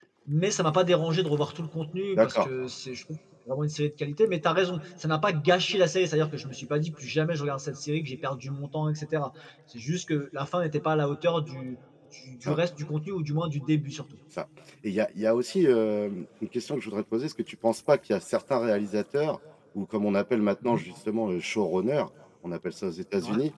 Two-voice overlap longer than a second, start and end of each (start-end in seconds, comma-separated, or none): none